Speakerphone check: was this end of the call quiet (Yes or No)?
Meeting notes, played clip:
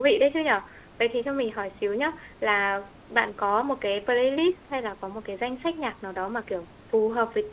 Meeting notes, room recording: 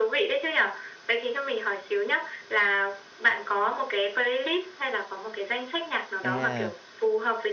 No